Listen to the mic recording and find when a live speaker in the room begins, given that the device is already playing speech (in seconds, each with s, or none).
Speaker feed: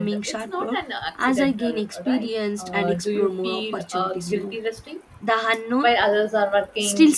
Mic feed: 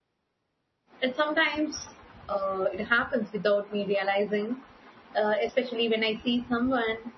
1.0 s